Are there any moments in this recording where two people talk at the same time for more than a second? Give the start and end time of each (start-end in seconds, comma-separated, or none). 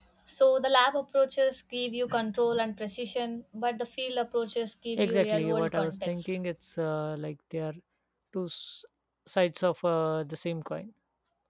5.0-6.3